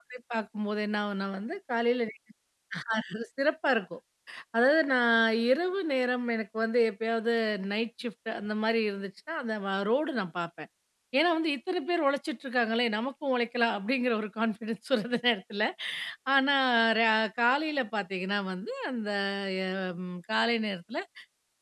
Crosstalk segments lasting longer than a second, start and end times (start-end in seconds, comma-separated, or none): none